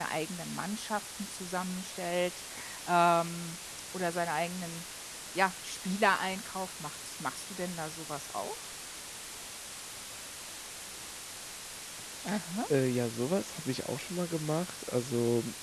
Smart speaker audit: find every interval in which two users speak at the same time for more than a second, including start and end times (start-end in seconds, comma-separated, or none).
none